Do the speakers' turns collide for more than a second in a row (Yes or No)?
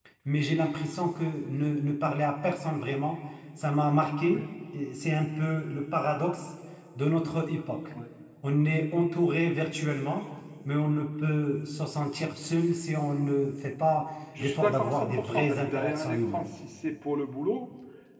Yes